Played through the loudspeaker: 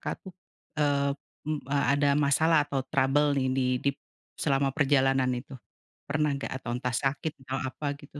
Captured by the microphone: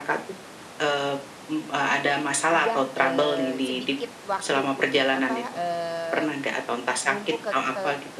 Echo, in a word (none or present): present